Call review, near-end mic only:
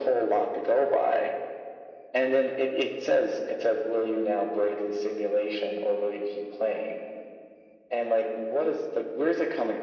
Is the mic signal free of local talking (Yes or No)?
Yes